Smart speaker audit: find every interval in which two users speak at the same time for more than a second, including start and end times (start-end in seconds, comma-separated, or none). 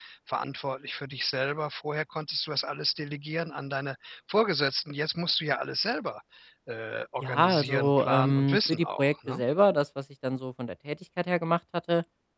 7.2-9.4